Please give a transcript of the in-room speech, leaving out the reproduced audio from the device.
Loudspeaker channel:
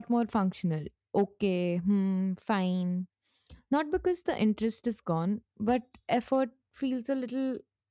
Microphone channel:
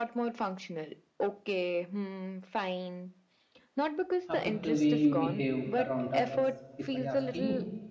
affect the way you behave around others? If I ask you,

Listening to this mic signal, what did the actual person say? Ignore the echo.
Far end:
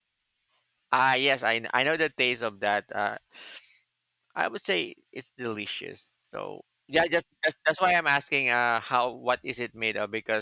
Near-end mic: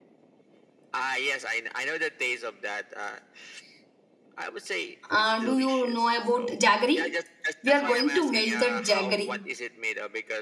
Uh, do you know about jaggery? We are going to melt that jaggery

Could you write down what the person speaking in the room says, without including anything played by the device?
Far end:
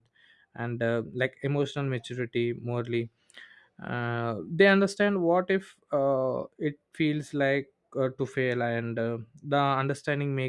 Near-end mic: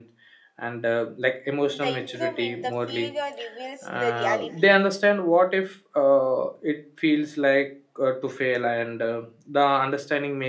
In the improvement, the failure reveals the reality.

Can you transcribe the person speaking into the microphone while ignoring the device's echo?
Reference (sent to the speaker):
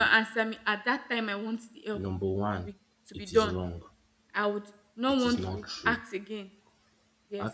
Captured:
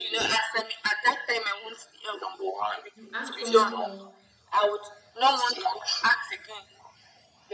you ask someone for

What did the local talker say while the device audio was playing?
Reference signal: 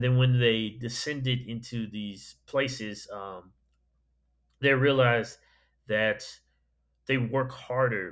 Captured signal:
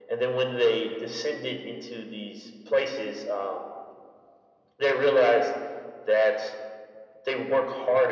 none

